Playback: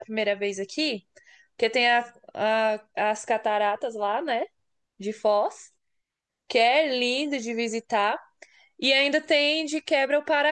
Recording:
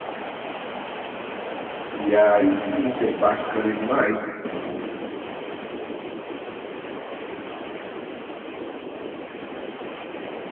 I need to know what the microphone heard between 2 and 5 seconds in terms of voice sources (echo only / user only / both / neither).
user only